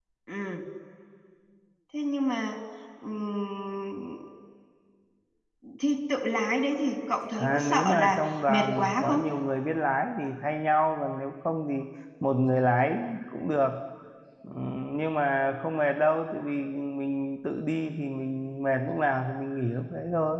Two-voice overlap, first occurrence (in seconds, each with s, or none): 7.4 s